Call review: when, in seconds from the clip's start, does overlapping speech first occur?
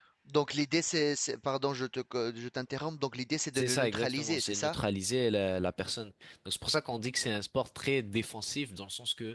3.5 s

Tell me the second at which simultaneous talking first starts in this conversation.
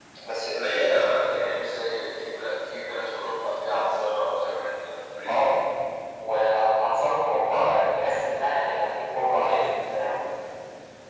none

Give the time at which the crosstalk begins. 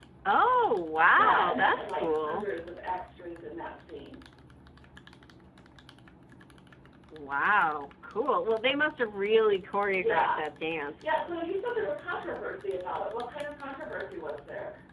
1.1 s

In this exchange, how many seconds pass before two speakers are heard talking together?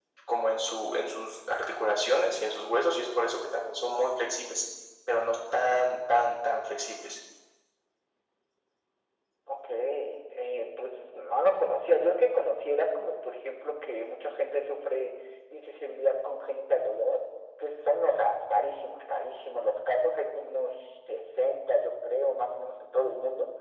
none

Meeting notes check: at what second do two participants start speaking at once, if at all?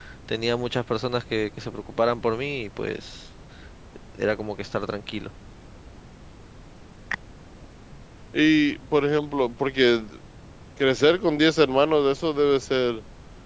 none

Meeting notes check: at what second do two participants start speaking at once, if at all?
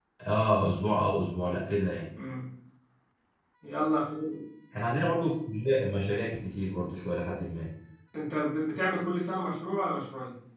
none

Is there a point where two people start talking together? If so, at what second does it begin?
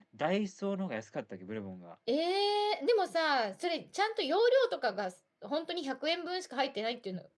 none

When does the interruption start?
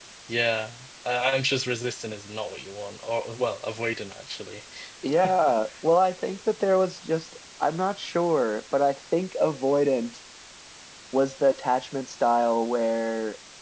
none

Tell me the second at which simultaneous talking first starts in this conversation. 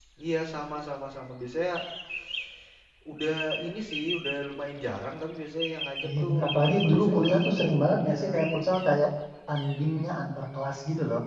6.0 s

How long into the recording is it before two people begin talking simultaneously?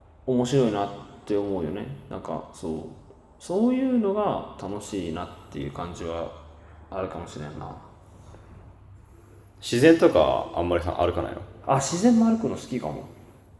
none

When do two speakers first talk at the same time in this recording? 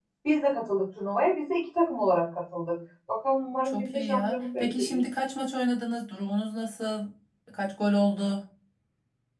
3.6 s

